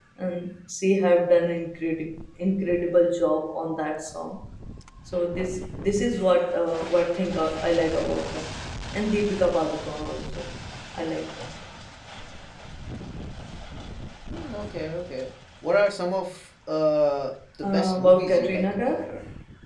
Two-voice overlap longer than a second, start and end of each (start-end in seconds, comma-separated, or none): 17.7-19.0